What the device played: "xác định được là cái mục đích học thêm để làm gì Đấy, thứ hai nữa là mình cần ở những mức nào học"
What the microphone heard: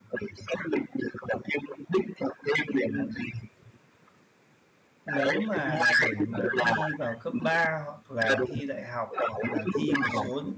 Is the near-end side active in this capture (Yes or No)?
Yes